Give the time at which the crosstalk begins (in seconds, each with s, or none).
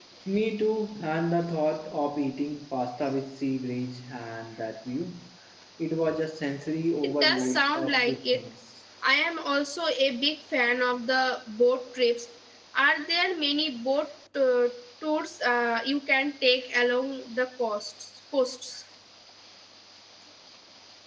7.0 s